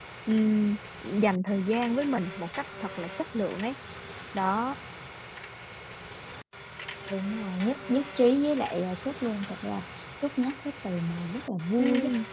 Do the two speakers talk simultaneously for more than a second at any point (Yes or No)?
No